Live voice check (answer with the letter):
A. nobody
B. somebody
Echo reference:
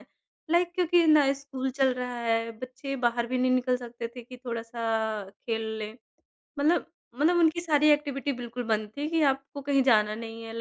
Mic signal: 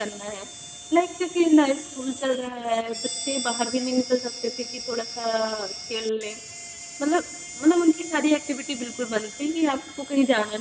A